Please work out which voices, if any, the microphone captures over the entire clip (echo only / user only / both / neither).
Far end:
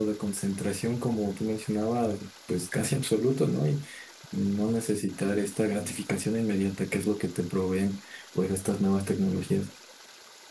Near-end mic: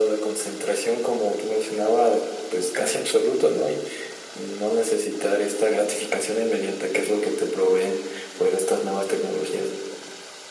echo only